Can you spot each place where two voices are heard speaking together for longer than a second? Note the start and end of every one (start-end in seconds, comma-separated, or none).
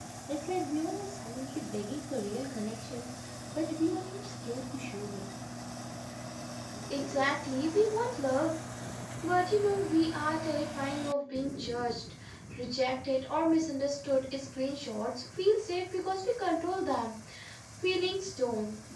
none